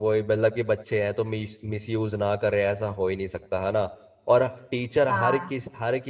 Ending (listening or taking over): listening